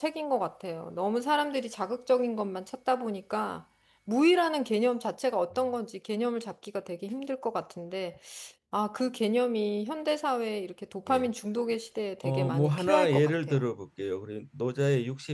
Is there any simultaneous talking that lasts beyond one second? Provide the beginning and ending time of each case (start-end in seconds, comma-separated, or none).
12.2-13.6